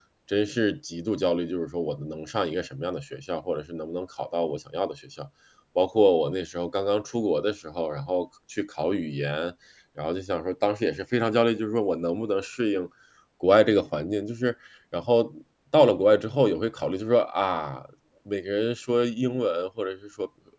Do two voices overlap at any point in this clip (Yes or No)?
No